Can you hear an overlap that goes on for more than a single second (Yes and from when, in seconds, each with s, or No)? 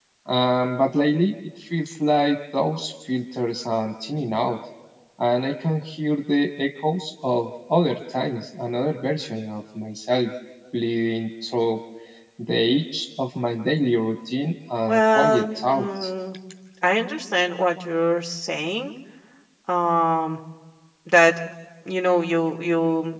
Yes, from 14.9 s